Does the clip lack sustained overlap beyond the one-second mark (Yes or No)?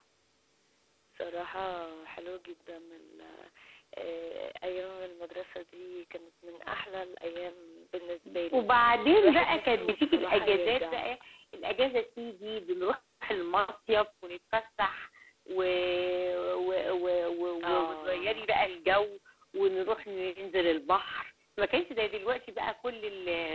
No